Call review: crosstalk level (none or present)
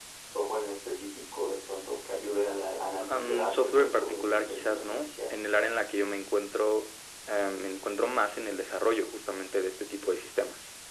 present